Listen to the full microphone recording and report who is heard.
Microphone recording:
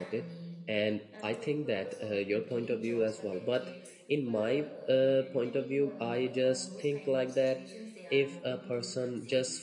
both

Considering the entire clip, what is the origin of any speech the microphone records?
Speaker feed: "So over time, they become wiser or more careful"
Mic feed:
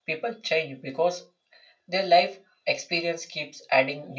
user only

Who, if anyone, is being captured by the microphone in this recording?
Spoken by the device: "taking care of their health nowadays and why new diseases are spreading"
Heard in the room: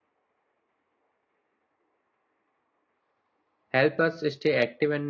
user only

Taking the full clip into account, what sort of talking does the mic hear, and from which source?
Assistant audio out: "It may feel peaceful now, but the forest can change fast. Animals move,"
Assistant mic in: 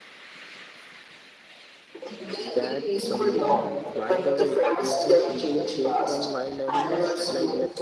both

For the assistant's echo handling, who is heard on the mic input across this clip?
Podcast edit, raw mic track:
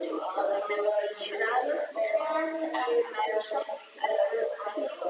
echo only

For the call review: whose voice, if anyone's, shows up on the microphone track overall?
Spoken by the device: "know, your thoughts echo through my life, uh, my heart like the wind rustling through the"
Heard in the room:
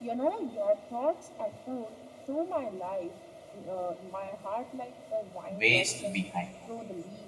both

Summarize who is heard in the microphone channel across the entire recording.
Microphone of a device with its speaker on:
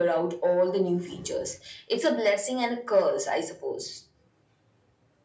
echo only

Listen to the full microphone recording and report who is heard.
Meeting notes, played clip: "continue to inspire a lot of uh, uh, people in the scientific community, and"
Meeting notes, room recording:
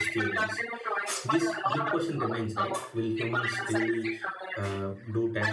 both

